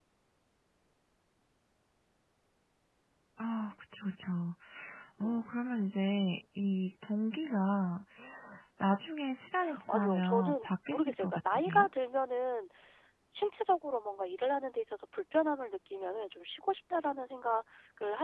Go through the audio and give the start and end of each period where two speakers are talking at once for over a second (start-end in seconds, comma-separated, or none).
9.9-11.9